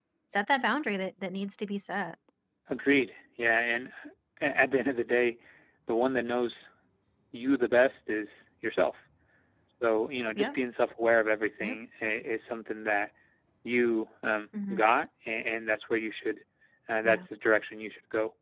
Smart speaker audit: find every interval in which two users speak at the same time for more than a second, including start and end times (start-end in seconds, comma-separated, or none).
none